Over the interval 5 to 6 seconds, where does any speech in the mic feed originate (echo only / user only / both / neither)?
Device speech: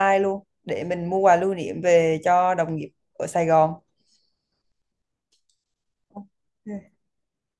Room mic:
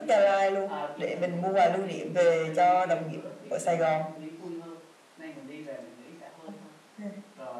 user only